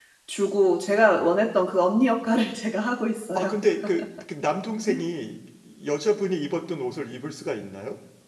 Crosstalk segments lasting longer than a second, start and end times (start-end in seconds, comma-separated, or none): none